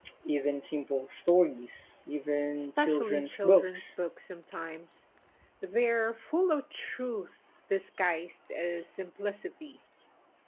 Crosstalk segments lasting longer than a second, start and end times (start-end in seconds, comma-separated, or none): 2.5-3.9